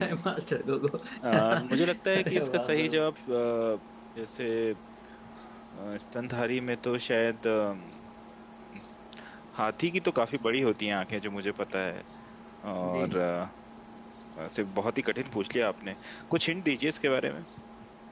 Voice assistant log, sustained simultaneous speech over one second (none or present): present